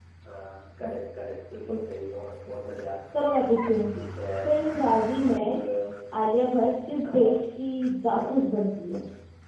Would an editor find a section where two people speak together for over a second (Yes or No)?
No